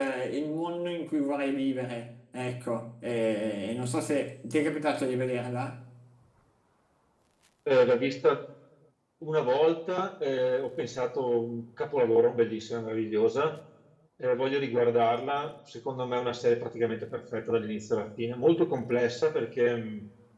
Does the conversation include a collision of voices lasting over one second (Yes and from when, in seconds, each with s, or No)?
No